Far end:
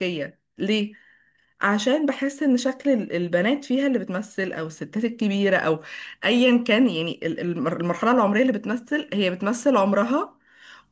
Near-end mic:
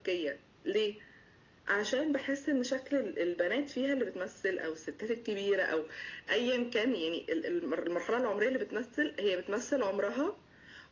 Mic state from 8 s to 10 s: echo only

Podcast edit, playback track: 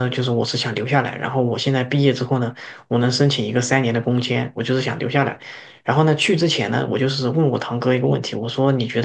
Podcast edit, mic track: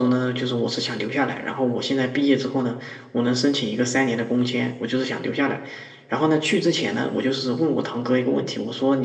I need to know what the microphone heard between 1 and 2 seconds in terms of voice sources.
echo only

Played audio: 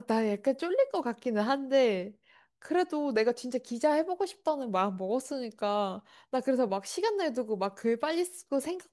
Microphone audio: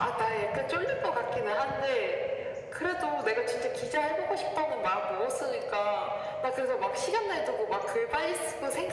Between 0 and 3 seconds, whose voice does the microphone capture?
echo only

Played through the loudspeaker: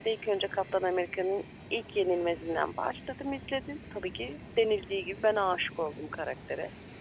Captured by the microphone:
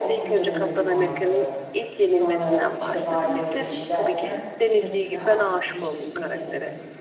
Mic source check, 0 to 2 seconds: both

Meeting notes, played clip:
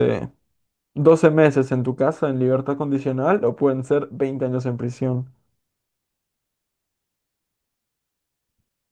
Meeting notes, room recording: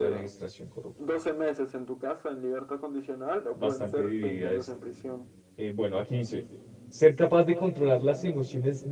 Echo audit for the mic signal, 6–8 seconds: user only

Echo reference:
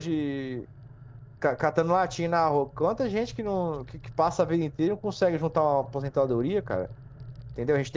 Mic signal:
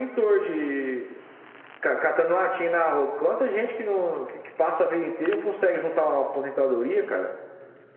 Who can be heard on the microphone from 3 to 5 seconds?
echo only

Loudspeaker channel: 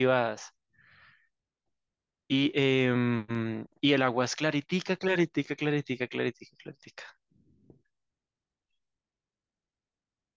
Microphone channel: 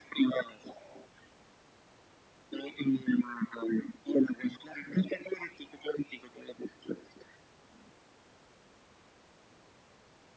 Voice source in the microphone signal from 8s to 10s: neither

